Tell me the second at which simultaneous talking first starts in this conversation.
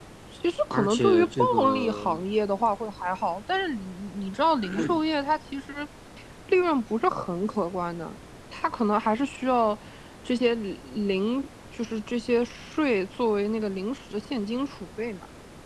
0.7 s

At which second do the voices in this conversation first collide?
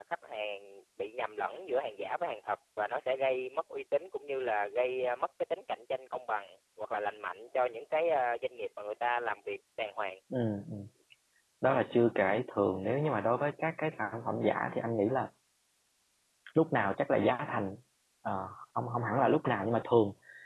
none

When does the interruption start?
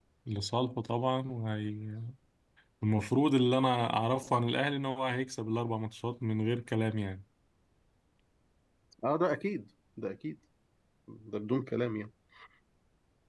none

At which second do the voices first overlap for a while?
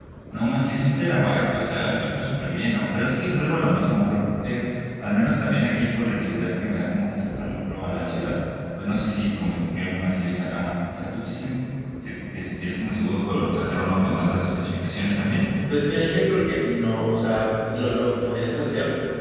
none

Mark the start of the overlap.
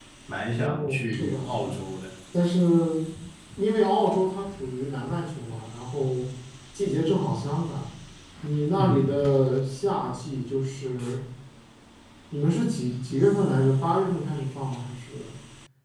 0.6 s

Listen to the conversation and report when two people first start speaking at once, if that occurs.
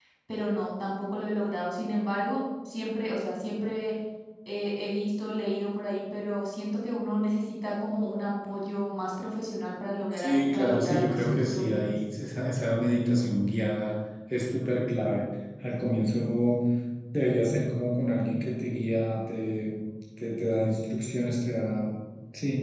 10.1 s

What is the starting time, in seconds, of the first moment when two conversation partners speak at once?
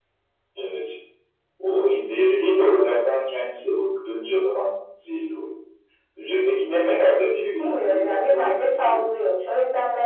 7.6 s

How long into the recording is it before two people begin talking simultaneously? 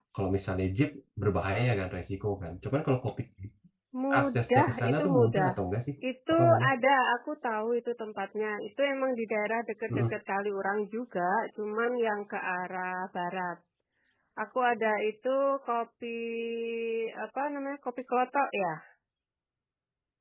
4.2 s

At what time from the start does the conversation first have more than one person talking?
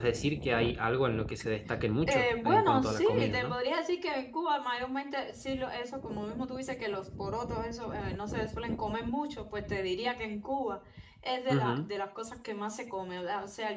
2.1 s

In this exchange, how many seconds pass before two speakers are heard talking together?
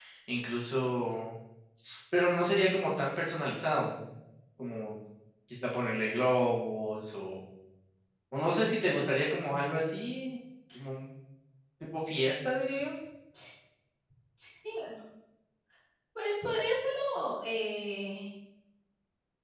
none

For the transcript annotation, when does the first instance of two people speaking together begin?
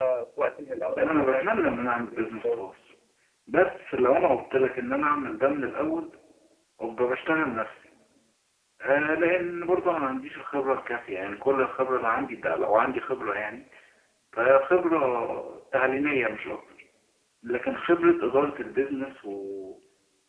1.0 s

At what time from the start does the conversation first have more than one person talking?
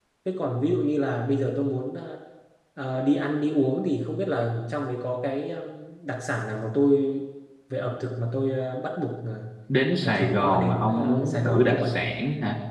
10.0 s

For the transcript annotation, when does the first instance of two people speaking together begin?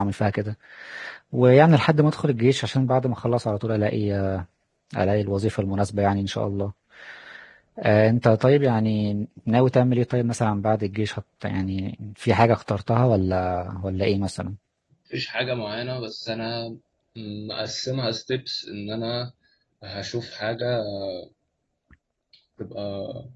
none

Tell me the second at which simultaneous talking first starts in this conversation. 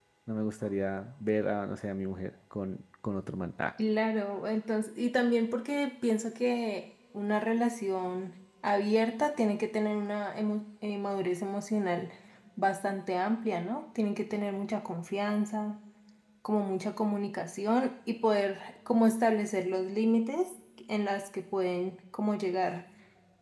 none

